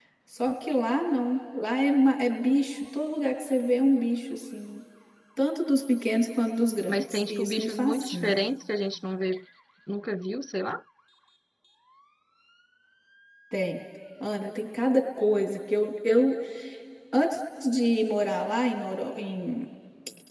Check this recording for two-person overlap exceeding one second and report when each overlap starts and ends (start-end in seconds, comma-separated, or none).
6.9-8.3